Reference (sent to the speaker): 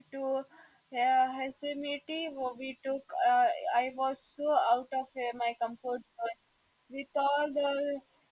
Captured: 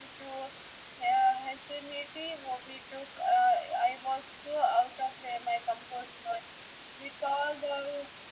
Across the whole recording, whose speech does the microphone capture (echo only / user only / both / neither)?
echo only